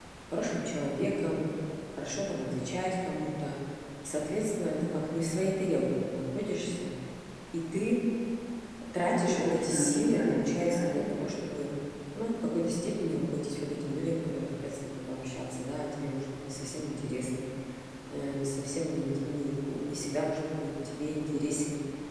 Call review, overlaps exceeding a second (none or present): present